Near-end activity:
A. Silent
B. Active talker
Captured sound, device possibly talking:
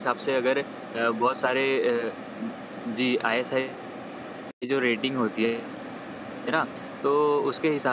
B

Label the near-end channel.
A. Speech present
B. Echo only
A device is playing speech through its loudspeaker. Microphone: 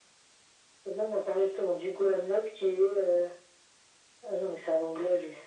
B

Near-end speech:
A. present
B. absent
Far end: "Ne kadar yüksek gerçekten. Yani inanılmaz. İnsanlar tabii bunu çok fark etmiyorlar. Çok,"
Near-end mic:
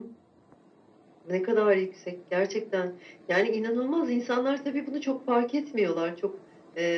B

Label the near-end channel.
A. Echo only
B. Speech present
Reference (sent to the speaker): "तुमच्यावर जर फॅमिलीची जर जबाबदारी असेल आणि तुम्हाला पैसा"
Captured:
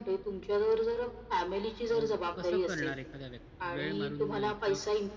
B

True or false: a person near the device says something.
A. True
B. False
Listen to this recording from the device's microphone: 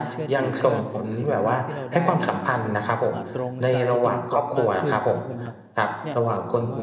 A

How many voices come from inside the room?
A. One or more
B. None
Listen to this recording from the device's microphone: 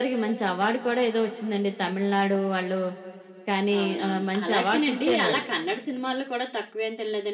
A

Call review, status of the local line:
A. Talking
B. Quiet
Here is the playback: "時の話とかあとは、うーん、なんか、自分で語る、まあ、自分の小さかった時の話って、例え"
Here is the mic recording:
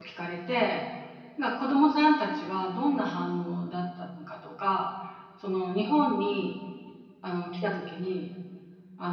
A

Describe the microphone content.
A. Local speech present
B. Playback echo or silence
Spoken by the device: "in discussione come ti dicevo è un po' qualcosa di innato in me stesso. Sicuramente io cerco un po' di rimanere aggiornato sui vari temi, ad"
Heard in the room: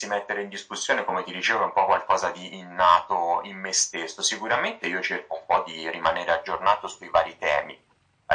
B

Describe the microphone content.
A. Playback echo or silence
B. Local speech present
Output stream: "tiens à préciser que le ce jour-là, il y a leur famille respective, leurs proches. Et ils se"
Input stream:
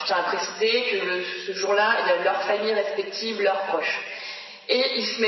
A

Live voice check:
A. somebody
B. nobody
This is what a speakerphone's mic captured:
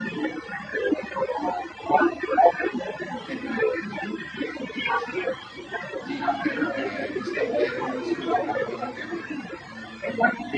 A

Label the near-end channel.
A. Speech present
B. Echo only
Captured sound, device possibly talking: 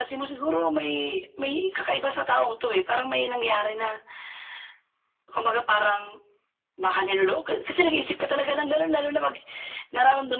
B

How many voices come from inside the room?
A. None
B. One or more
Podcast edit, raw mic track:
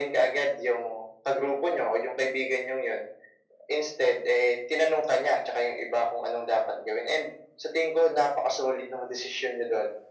A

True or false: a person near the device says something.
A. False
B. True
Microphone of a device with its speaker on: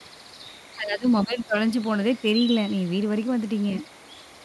B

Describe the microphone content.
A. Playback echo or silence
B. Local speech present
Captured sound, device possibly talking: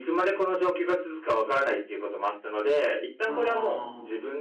B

